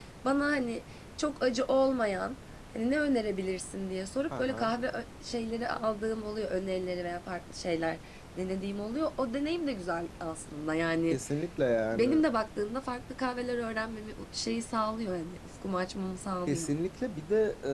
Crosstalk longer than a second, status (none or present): none